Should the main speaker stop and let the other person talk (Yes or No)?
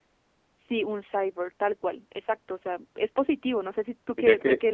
Yes